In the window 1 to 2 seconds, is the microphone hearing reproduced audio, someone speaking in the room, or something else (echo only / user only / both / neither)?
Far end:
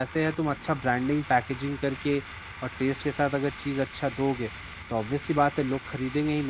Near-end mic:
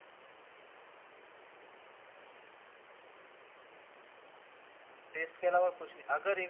neither